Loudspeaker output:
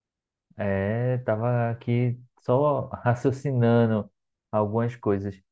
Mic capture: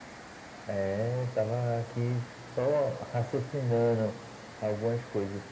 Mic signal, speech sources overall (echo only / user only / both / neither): echo only